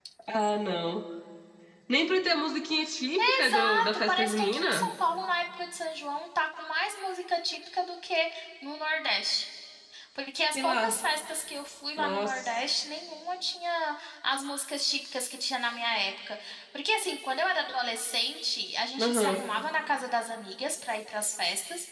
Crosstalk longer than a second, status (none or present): present